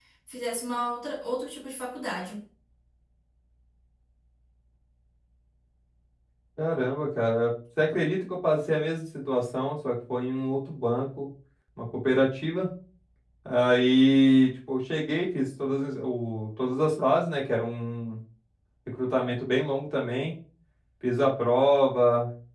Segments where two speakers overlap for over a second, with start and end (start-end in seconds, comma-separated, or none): none